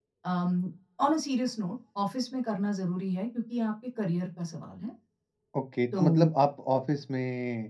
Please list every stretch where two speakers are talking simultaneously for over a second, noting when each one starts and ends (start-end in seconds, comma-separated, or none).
none